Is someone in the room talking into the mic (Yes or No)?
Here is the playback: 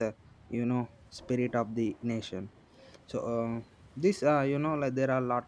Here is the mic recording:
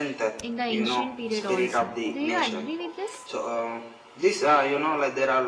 Yes